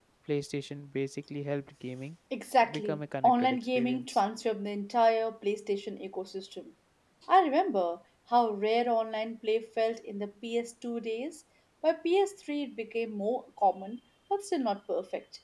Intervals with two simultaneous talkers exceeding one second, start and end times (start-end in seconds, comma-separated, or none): 2.7-4.2